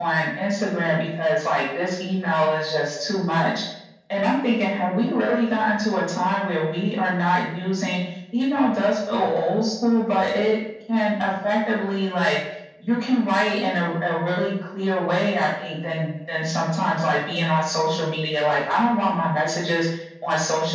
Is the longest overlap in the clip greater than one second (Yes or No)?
No